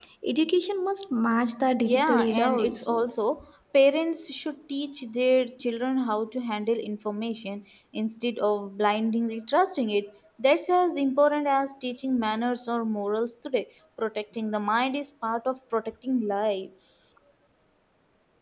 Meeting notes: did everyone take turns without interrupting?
No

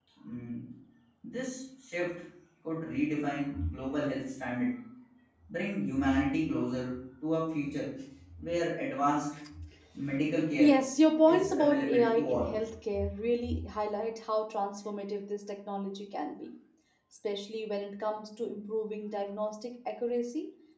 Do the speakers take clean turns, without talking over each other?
No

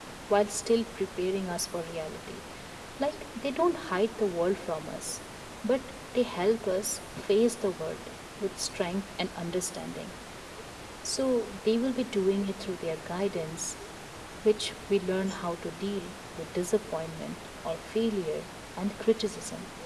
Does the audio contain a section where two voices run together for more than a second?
No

